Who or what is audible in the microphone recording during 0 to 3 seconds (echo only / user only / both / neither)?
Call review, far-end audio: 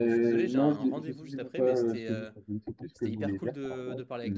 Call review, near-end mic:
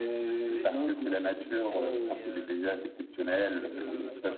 both